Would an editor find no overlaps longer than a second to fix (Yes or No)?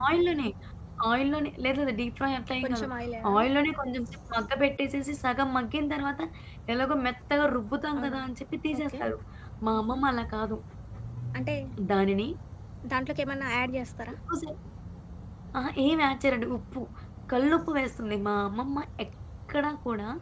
Yes